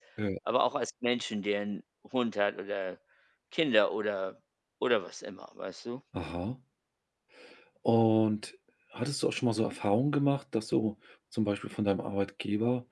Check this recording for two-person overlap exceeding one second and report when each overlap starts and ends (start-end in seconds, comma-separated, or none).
none